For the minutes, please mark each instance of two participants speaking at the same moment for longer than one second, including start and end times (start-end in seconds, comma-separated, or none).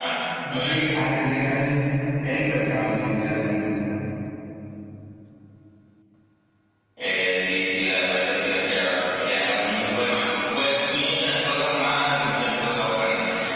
none